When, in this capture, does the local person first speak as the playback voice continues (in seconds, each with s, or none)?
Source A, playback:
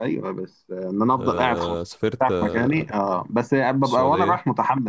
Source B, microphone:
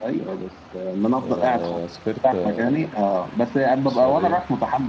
none